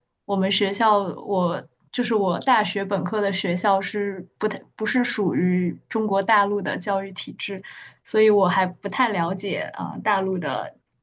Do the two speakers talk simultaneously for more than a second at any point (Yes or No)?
No